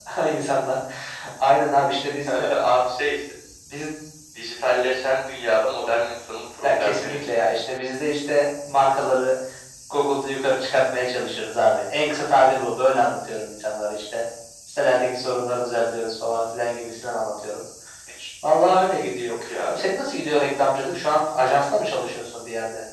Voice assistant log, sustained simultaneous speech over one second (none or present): none